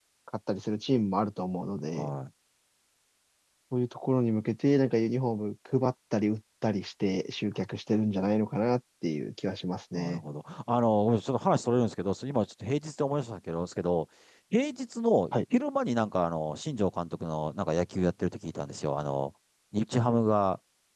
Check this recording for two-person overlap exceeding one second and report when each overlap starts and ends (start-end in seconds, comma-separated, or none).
none